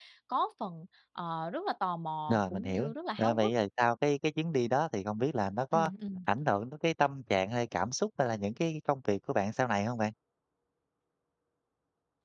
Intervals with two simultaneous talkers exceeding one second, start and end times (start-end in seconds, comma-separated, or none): 2.3-3.5